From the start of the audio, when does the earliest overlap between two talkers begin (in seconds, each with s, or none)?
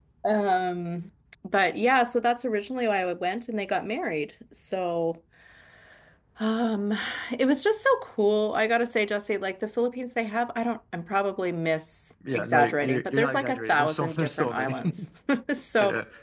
12.2 s